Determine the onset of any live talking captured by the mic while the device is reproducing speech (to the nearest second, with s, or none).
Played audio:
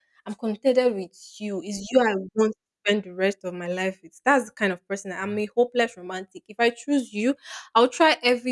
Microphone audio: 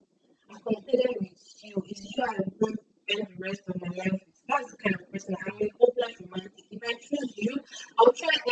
none